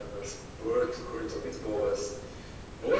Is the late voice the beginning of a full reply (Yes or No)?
No